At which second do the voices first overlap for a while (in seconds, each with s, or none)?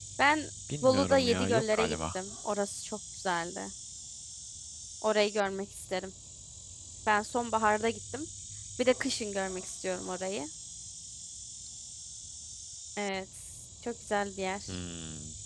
0.8 s